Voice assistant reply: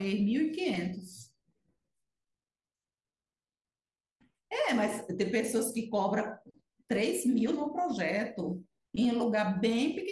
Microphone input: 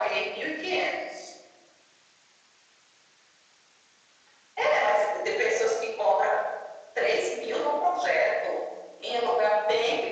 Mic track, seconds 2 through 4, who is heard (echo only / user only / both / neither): neither